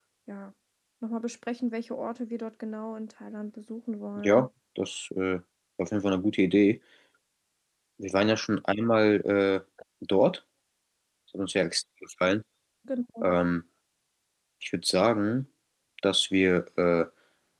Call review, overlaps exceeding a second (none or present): none